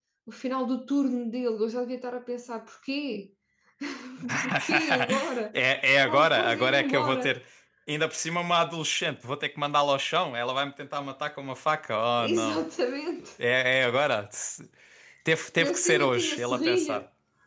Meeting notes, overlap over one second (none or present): present